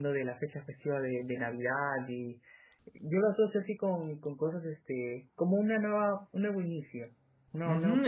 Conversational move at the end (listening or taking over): taking over